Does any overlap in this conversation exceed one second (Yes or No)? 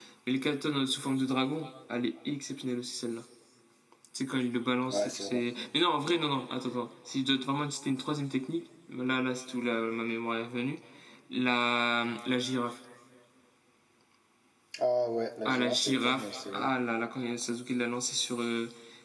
Yes